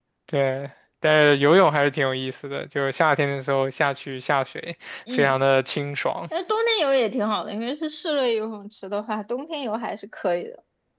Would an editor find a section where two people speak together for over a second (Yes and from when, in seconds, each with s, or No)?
No